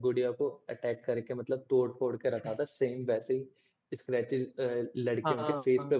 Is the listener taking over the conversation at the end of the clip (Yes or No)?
Yes